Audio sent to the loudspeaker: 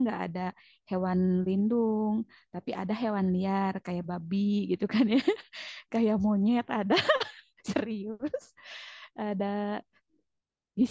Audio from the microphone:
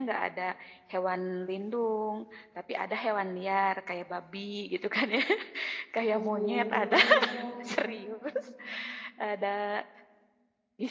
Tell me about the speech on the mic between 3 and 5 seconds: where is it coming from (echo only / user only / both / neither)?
echo only